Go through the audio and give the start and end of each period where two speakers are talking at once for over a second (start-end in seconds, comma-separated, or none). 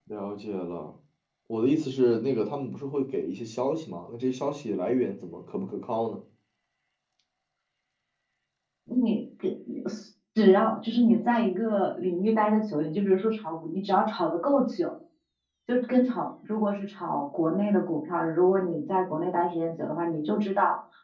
none